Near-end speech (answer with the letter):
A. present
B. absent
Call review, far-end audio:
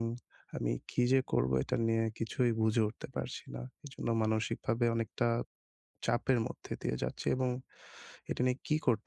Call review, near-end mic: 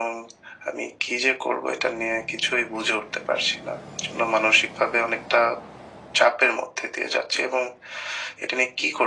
B